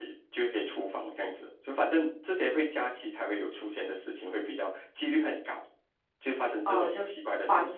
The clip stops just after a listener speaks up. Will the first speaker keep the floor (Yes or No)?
No